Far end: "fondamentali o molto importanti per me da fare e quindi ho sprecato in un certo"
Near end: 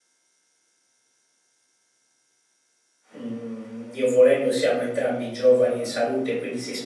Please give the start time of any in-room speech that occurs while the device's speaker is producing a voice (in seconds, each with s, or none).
3.2 s